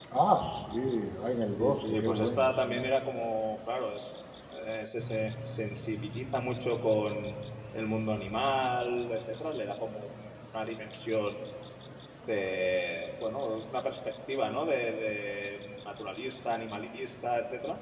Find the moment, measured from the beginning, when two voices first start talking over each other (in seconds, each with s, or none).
1.6 s